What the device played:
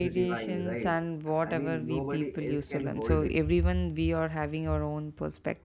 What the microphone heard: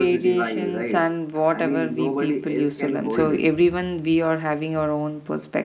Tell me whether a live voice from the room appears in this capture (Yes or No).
No